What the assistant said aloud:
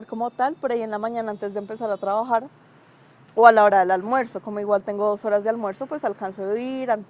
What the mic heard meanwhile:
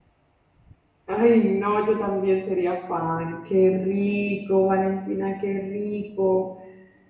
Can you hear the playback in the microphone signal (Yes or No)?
No